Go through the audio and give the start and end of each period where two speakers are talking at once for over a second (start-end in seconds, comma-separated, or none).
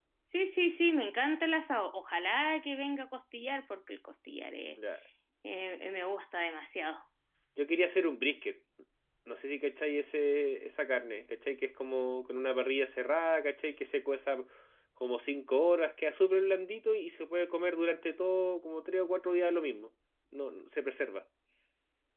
none